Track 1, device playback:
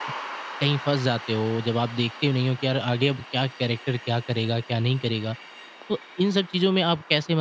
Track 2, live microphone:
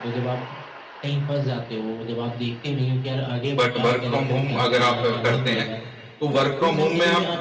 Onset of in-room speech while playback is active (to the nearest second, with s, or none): 4 s